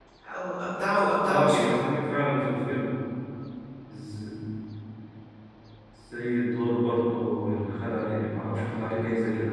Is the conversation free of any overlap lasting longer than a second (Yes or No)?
Yes